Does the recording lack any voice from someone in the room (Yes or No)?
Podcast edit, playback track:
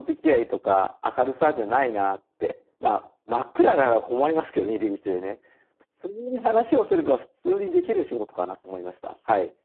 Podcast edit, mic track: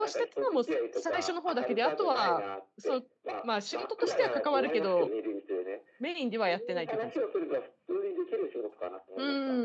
No